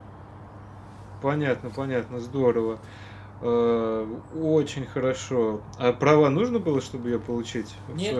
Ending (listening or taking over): taking over